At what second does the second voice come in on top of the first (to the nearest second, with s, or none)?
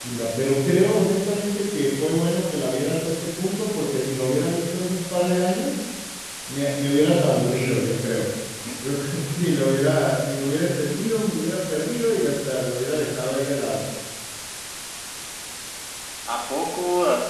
none